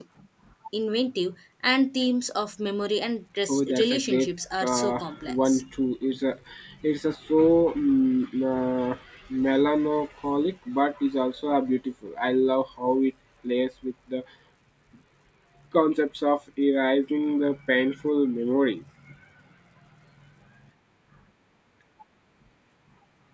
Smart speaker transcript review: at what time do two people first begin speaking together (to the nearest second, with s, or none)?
3 s